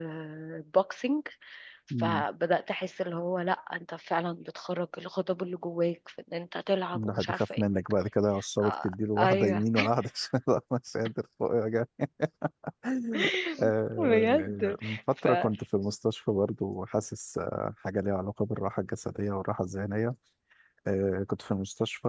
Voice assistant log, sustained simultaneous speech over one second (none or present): present